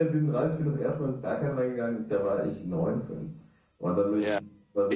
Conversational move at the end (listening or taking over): taking over